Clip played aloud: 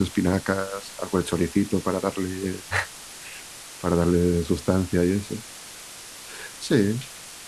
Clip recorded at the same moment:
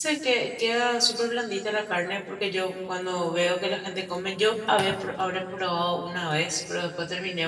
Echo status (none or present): none